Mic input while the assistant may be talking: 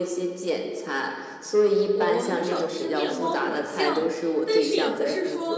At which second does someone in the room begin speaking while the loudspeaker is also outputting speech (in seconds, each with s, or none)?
1.9 s